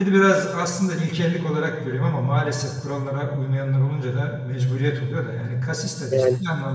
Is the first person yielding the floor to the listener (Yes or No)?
No